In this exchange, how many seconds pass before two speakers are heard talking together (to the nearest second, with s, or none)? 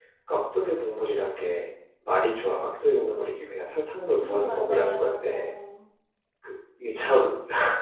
4 s